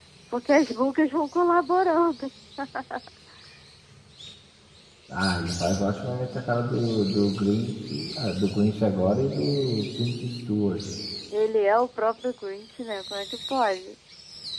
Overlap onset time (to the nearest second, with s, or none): none